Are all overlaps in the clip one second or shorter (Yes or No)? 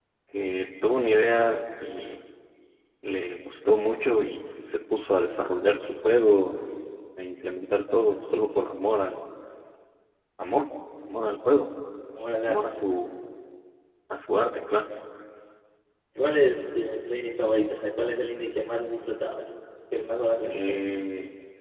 Yes